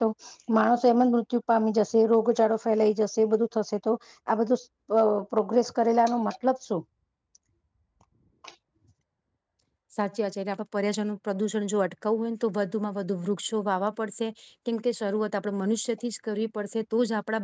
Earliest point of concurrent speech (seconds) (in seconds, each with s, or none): none